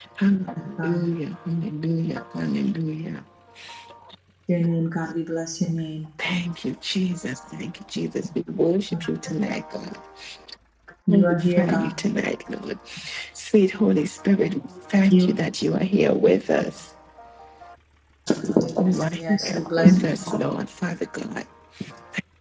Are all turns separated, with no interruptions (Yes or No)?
No